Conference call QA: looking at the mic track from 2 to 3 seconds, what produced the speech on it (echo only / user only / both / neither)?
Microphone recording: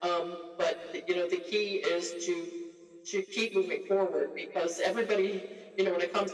echo only